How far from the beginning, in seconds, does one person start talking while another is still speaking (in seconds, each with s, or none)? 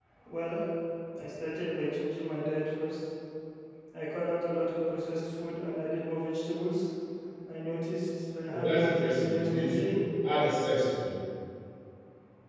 8.5 s